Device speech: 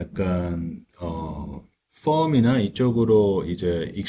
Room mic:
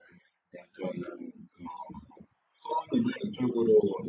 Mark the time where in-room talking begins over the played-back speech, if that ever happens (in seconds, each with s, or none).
none